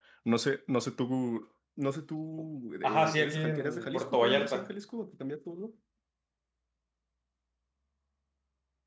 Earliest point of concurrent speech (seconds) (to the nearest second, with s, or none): 3 s